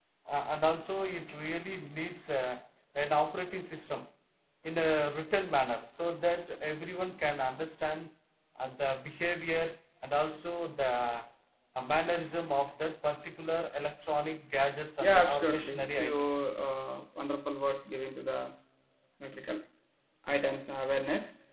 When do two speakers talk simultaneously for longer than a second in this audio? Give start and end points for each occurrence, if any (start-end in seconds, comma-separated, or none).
15.0-16.2